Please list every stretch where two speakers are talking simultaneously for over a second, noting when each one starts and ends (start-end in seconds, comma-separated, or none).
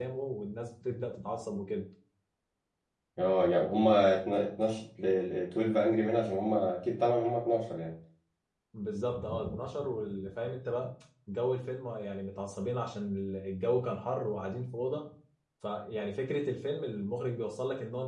none